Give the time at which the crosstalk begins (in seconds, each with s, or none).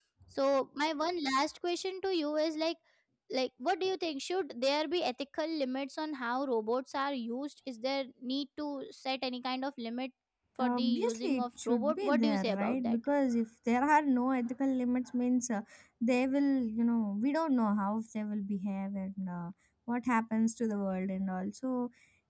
10.6 s